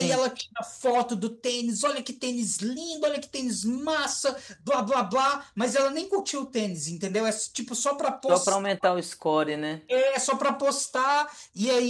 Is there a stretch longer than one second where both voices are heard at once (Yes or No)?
No